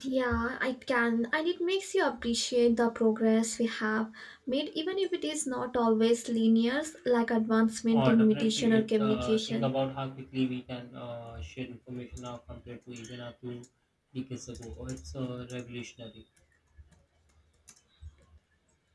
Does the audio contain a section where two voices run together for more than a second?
Yes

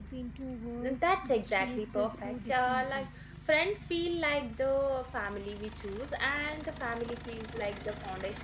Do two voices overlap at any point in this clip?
Yes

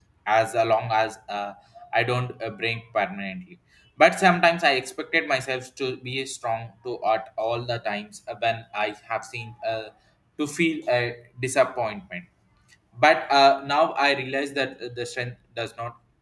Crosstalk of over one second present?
No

